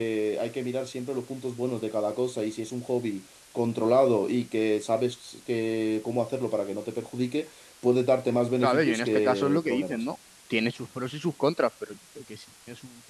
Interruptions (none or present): present